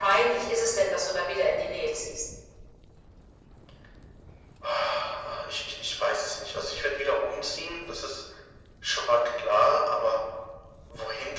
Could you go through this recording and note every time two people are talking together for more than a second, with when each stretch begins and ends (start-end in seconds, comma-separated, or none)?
none